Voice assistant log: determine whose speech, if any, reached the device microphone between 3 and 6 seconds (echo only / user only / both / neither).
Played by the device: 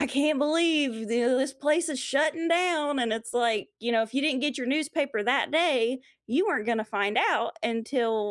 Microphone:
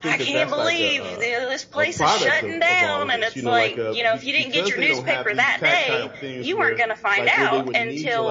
both